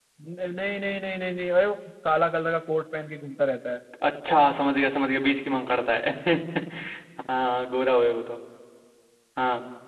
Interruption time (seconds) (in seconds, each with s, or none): none